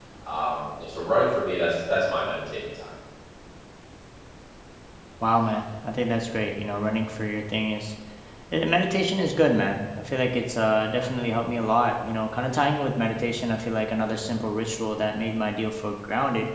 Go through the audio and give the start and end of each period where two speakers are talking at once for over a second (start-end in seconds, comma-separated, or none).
none